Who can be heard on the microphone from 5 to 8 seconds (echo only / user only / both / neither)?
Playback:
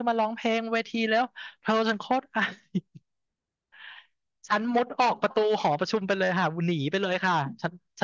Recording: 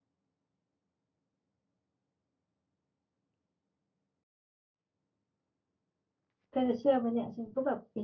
user only